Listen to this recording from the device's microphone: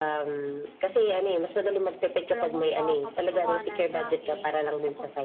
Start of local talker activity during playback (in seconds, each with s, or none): 2.3 s